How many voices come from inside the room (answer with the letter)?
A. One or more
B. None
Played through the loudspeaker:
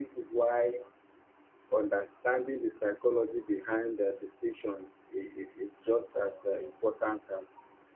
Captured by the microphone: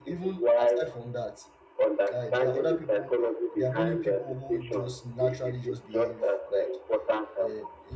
A